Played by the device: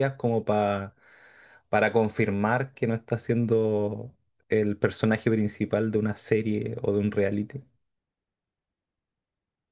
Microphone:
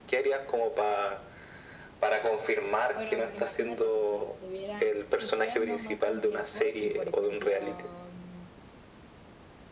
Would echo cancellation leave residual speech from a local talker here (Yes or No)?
Yes